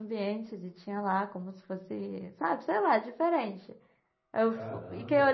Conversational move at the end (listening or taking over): listening